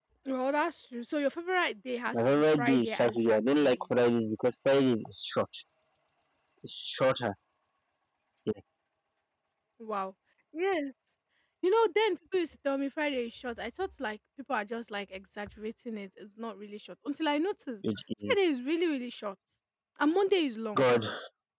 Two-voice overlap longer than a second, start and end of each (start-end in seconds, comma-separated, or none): 2.1-3.8